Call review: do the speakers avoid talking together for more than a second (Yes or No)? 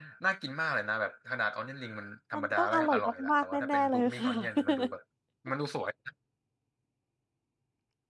No